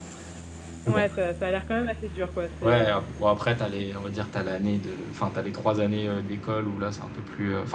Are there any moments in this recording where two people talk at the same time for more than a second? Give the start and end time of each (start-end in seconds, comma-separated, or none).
none